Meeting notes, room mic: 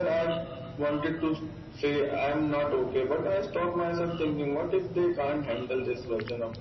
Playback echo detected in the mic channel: Yes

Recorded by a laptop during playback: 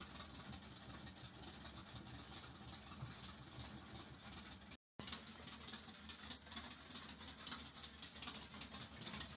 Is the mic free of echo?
Yes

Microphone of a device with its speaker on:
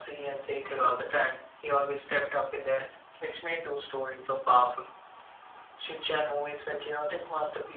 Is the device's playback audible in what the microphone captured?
Yes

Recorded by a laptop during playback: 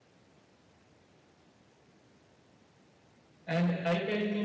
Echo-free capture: Yes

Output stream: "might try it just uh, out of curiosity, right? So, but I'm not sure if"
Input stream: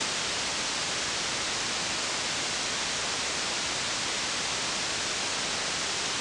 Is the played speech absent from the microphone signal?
Yes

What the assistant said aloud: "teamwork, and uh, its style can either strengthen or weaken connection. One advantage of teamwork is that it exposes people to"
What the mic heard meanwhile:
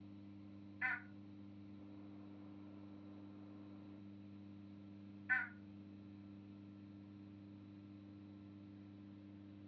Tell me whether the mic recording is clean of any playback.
Yes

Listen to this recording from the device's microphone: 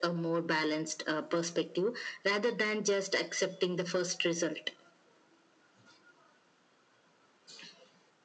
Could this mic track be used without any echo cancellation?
No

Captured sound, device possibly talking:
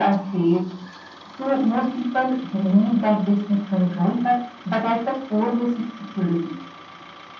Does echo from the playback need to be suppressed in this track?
Yes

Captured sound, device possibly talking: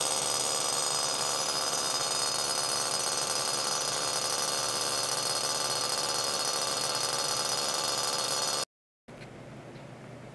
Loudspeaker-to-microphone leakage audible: No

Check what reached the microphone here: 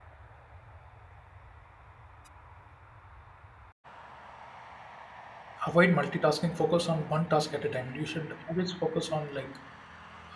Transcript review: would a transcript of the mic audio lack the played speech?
Yes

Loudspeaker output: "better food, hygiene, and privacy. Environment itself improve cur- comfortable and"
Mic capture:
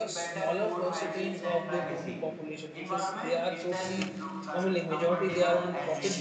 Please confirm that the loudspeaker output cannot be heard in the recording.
No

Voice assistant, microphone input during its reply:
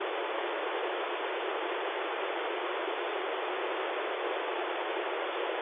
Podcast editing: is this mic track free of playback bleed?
Yes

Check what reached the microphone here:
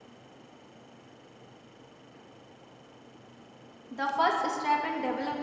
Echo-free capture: Yes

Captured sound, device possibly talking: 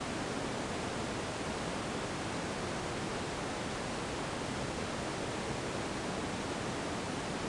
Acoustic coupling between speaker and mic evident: No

